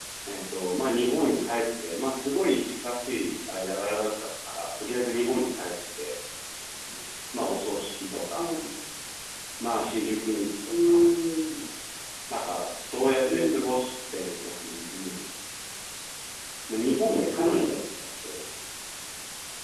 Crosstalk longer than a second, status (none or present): none